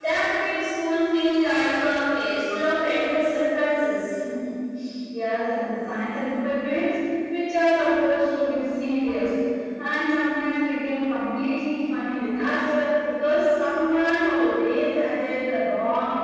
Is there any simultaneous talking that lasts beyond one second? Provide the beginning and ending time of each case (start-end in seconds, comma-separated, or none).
none